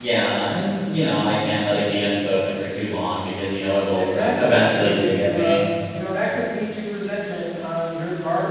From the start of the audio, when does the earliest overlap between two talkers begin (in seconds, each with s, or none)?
3.9 s